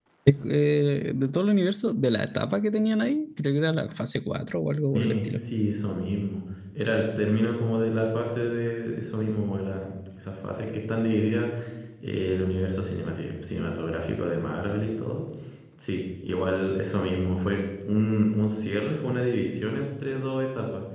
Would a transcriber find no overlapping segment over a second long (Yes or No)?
Yes